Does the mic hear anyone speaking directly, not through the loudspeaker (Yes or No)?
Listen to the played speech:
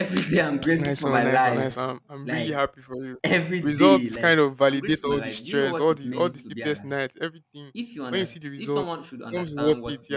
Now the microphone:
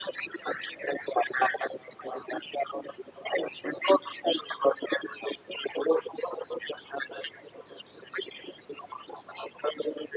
No